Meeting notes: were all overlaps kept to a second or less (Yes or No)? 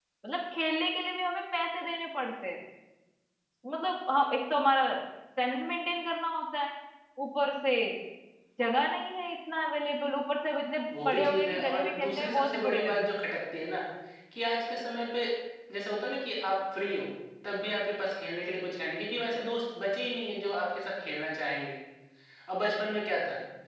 No